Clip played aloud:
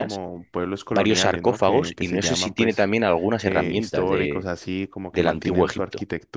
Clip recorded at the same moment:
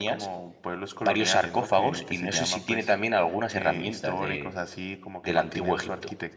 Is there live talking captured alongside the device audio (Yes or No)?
No